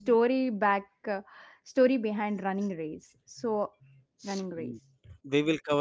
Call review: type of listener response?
taking over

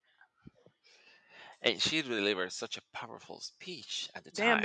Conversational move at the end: taking over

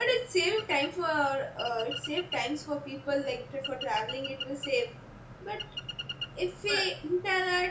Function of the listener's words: listening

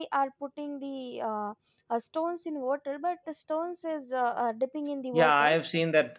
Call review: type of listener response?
taking over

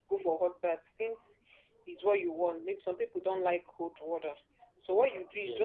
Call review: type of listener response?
listening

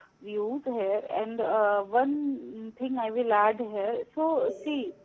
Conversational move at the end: listening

